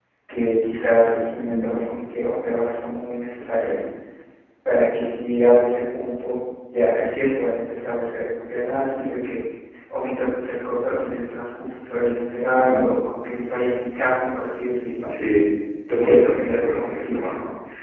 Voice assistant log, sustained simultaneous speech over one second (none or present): present